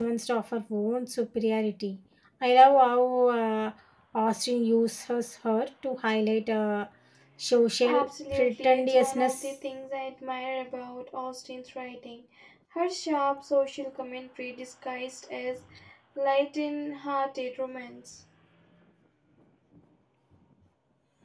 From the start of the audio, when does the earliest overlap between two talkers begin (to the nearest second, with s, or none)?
8 s